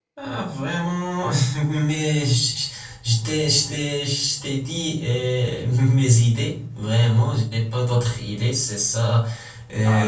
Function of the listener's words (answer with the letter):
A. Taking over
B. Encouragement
A